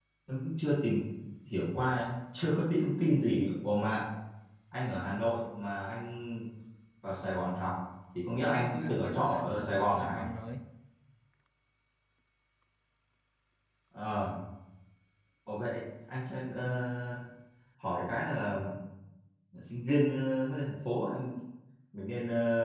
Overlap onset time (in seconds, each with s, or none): 8.4 s